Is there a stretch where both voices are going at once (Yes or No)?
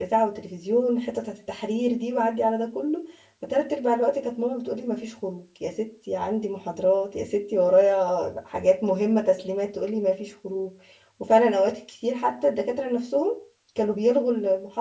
No